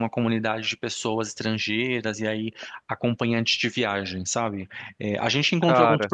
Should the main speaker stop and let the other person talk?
No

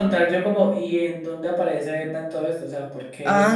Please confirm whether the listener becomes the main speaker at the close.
Yes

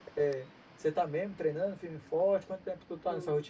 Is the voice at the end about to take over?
Yes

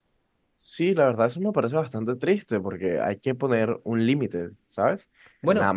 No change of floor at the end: Yes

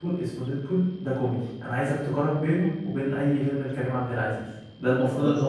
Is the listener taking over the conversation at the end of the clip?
No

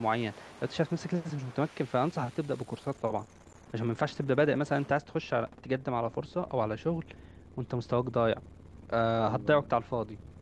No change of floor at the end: Yes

